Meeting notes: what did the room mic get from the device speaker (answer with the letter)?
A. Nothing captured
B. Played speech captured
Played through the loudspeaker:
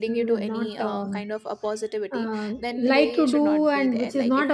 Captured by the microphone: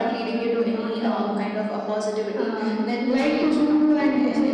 B